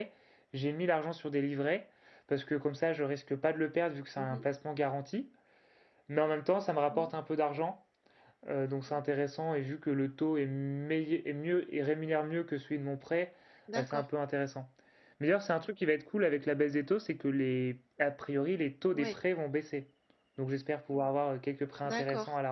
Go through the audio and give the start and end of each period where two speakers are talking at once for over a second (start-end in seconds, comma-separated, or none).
none